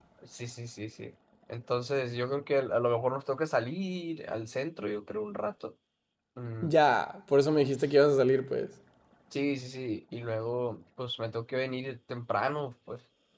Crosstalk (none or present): none